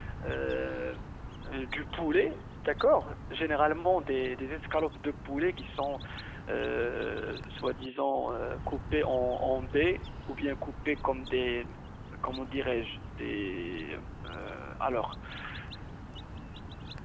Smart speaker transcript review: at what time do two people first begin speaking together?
none

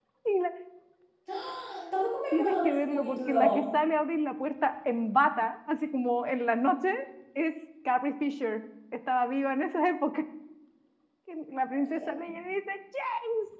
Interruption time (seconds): 2.3 s

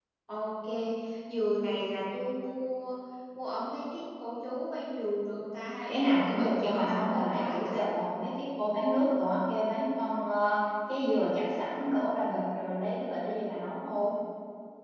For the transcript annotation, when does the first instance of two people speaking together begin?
5.9 s

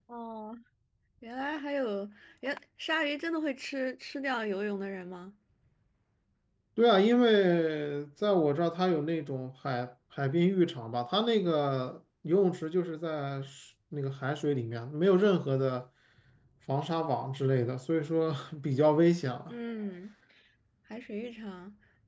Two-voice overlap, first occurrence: none

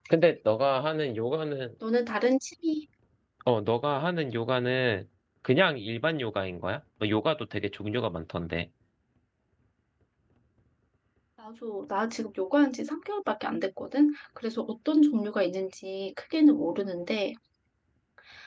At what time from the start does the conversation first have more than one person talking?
none

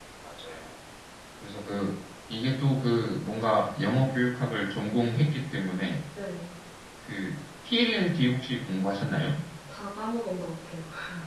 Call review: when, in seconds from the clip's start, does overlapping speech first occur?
none

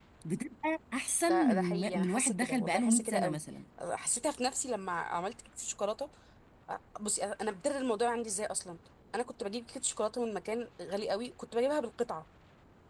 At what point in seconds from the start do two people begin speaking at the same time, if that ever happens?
1.3 s

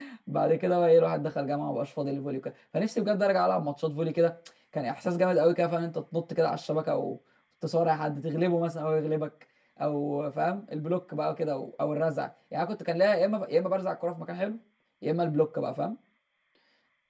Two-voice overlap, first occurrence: none

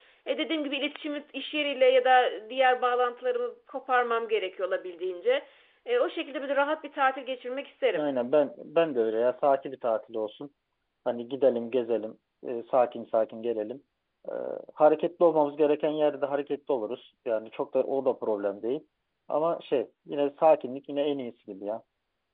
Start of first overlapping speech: none

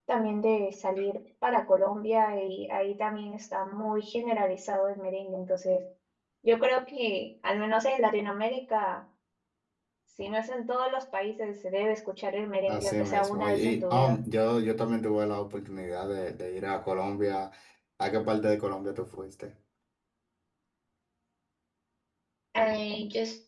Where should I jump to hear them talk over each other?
12.7 s

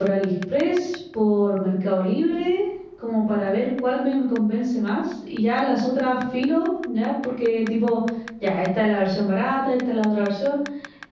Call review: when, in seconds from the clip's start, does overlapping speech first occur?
none

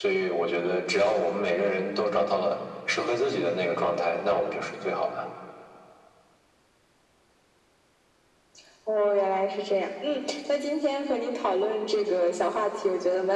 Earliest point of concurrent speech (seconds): none

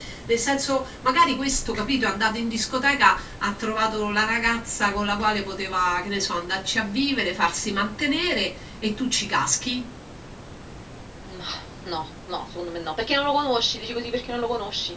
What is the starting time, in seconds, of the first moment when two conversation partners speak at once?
none

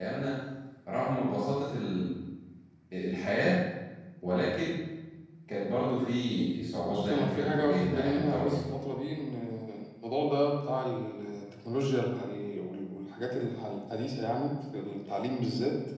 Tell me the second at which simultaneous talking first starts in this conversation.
6.8 s

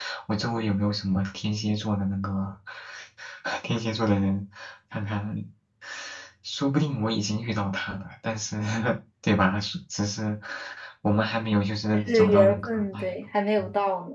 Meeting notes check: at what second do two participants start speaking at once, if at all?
11.9 s

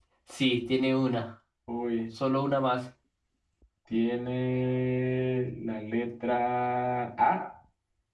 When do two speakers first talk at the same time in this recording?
none

